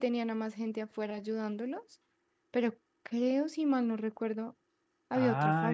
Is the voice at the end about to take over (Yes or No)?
Yes